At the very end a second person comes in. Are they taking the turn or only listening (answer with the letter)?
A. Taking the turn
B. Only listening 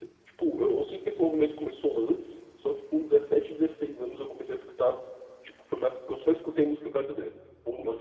A